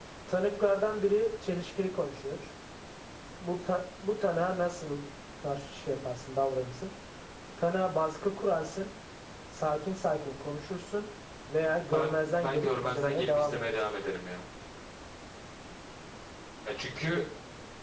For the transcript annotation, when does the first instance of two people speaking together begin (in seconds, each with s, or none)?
11.9 s